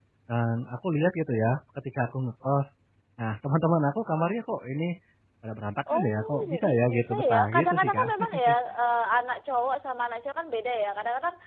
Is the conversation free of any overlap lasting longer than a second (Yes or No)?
No